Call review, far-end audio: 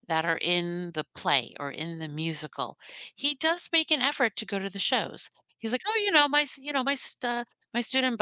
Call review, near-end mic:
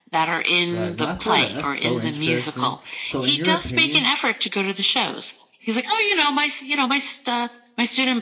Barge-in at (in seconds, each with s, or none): 0.7 s